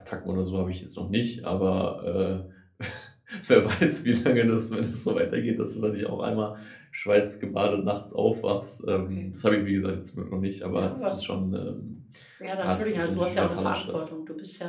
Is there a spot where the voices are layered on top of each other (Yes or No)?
Yes